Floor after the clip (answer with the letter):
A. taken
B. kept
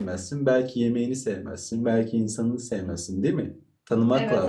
A